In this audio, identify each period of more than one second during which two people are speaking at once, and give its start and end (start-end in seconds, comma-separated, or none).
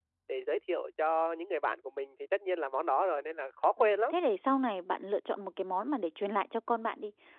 none